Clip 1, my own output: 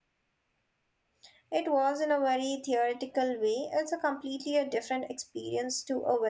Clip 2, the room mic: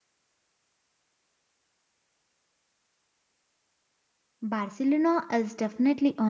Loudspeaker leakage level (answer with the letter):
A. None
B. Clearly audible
A